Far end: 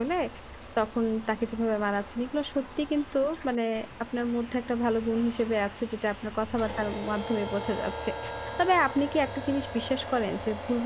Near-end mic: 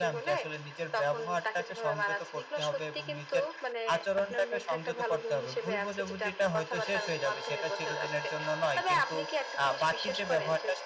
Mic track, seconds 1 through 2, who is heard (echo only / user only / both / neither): both